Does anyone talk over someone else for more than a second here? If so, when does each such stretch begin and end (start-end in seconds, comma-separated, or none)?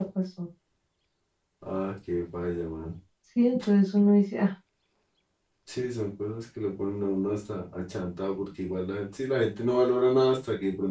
none